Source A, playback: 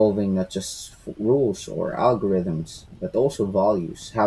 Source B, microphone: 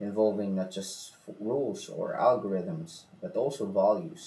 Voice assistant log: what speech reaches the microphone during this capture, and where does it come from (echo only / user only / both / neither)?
echo only